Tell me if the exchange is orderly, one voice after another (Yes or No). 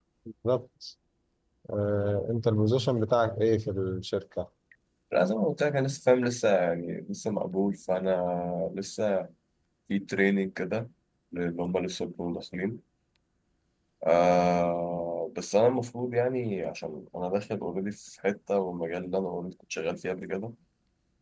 Yes